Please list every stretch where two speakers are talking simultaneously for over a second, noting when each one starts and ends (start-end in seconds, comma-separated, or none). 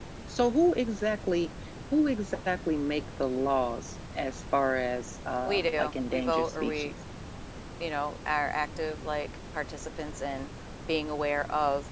5.5-6.9